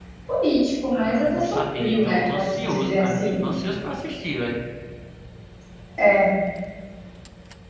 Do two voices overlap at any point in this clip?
Yes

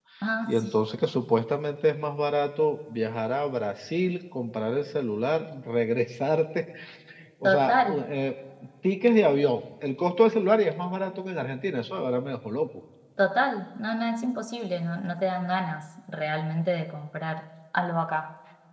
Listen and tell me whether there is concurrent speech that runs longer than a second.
No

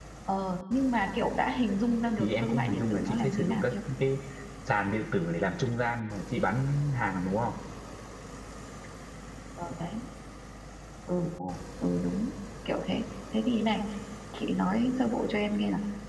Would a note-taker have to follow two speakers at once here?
Yes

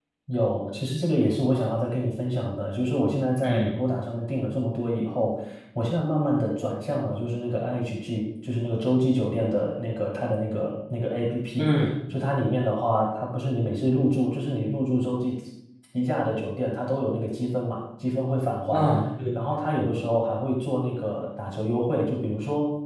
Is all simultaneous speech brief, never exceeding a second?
Yes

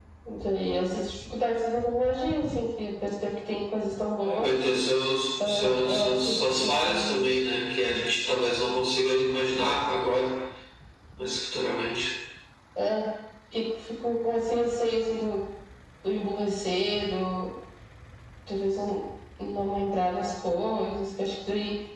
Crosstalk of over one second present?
Yes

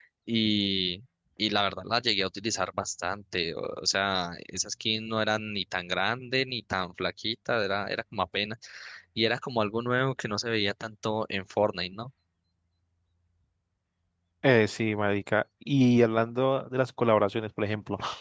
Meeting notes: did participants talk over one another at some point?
No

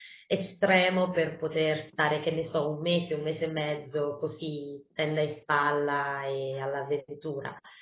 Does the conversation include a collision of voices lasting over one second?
No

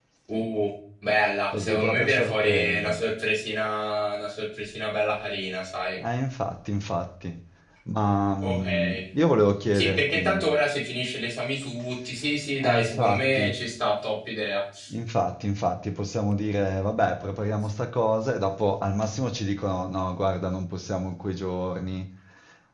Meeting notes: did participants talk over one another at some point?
Yes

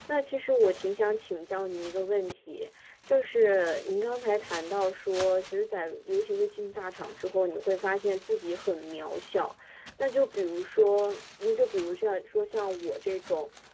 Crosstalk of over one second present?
No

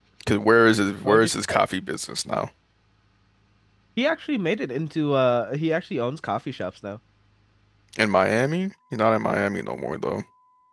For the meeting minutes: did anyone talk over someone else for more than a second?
No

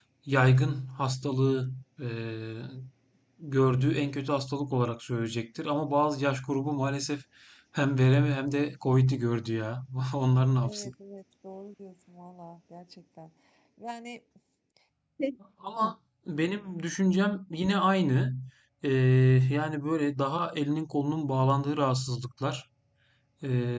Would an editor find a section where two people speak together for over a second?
No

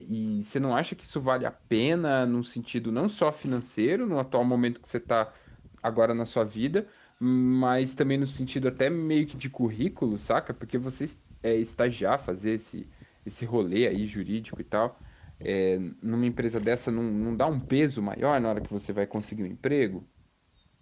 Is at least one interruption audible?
No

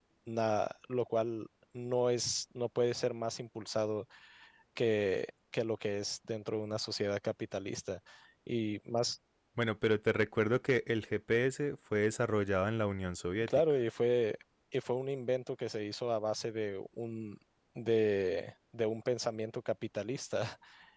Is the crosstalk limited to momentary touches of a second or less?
Yes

